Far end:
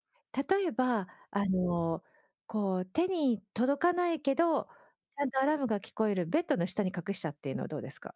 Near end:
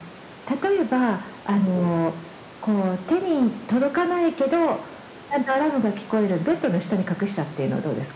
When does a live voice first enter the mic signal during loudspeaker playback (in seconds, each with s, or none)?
none